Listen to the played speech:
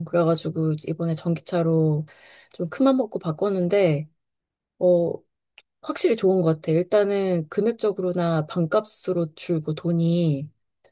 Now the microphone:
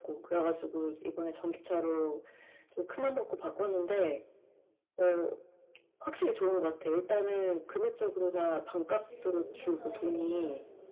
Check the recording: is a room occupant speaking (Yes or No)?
Yes